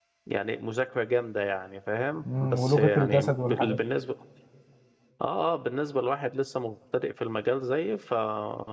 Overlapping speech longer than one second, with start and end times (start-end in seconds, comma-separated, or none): 2.2-3.8